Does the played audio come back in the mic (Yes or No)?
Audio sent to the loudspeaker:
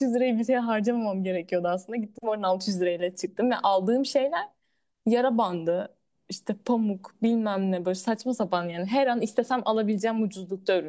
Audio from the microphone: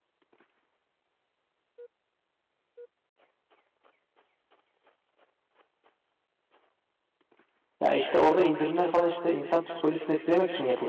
No